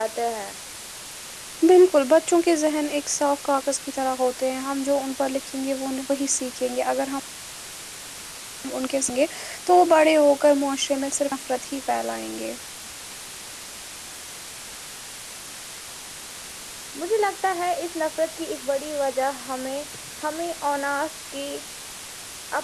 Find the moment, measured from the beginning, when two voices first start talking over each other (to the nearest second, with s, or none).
none